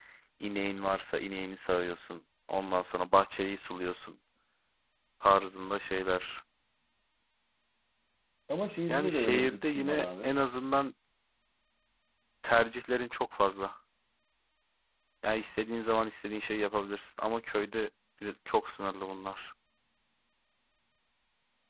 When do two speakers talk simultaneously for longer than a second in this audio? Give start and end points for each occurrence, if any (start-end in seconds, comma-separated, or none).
8.9-10.3